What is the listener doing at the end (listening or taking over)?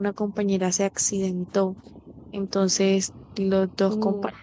listening